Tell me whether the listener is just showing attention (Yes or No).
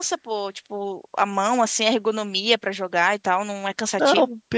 No